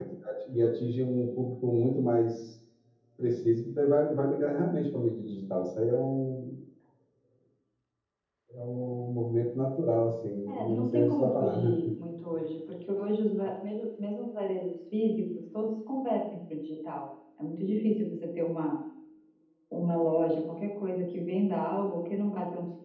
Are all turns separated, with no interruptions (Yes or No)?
No